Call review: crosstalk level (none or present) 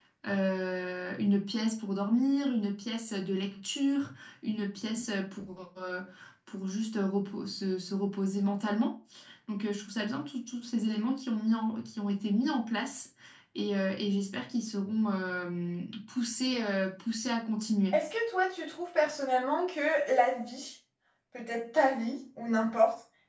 none